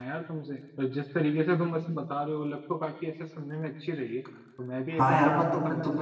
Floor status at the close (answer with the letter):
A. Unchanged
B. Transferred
B